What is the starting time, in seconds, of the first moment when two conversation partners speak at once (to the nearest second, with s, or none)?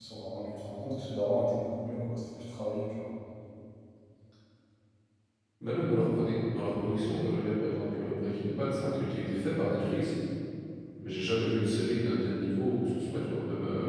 none